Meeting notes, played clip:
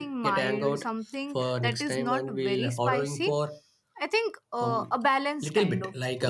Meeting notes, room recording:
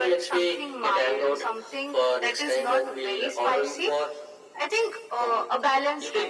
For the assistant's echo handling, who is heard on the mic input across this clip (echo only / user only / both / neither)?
echo only